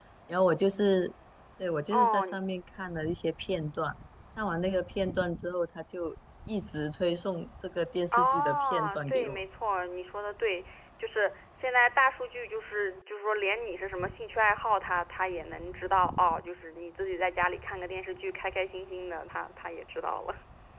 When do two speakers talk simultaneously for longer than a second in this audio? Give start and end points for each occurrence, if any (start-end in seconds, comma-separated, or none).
8.1-9.4